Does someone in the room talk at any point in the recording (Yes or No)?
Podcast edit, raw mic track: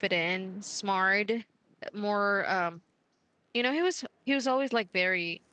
Yes